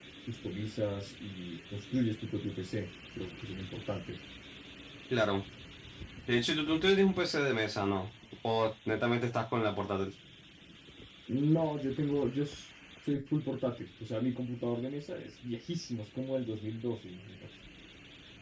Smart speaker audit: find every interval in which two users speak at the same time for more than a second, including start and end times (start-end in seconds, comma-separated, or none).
none